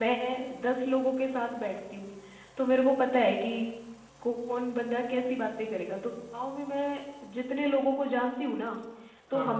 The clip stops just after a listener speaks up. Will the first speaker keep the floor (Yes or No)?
Yes